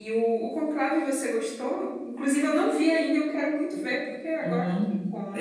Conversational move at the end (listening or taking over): taking over